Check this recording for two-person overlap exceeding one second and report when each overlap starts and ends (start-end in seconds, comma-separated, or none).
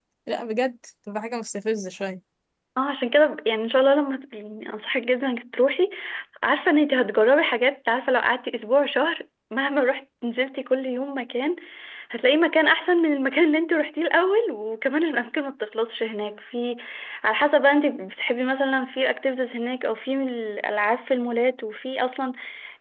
none